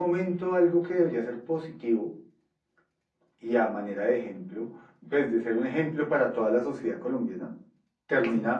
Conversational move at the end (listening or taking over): listening